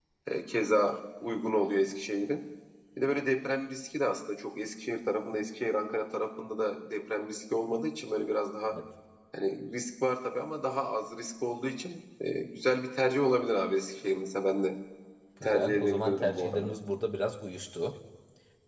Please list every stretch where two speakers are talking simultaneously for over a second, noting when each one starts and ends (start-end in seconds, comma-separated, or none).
15.4-16.8